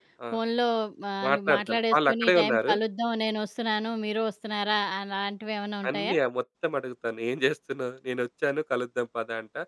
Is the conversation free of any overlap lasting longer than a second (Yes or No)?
No